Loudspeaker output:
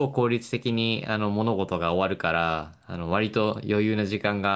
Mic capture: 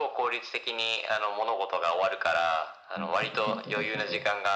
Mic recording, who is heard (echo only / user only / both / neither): both